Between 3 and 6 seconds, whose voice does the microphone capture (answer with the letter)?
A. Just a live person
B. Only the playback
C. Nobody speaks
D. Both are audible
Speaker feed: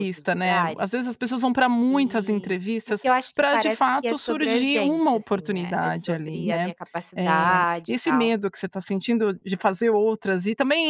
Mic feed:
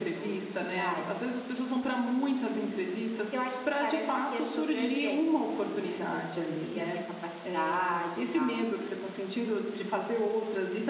B